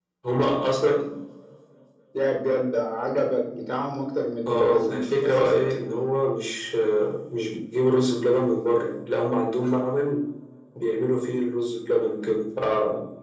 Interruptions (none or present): present